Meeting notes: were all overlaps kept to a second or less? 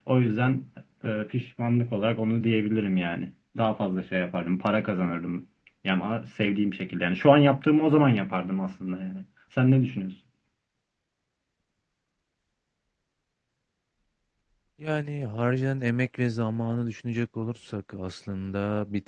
Yes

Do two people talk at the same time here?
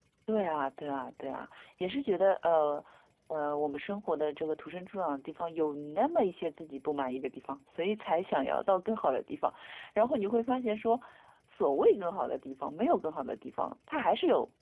No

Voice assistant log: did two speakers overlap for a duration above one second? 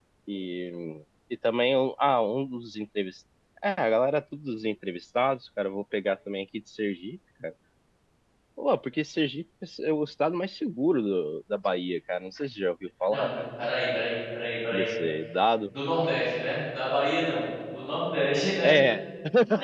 No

